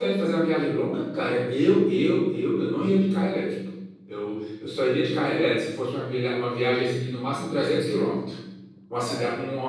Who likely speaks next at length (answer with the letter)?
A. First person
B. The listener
A